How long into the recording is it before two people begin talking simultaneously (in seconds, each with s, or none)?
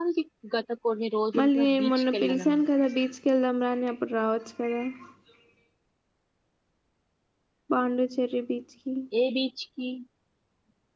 1.3 s